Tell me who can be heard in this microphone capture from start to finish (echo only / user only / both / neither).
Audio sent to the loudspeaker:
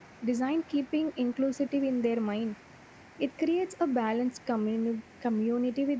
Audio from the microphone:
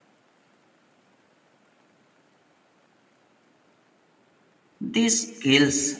user only